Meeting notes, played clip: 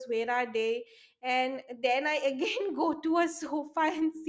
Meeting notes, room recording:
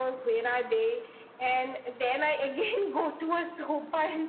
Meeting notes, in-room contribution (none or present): none